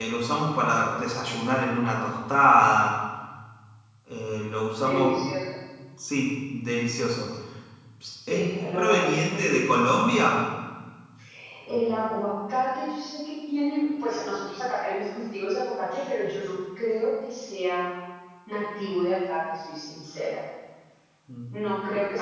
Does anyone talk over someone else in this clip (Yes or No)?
Yes